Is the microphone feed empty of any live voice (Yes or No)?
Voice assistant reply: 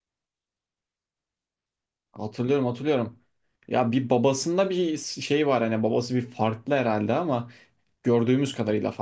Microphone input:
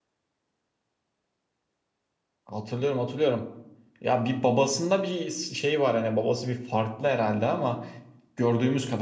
Yes